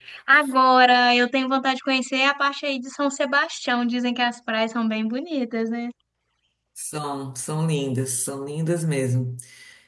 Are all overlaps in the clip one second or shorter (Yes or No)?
Yes